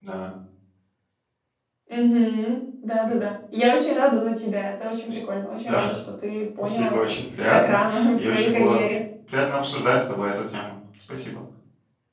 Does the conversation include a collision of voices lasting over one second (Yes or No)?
Yes